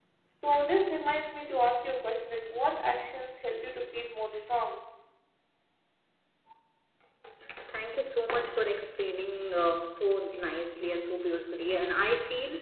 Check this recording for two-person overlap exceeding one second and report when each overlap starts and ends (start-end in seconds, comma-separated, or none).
none